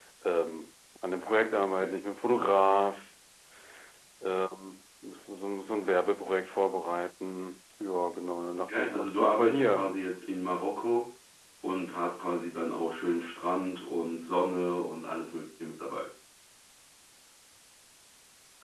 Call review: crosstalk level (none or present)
present